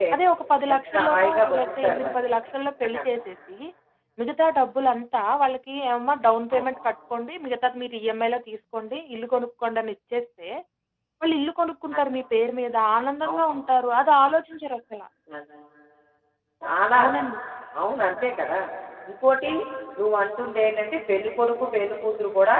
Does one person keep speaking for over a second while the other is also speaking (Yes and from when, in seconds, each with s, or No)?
Yes, from 0.7 s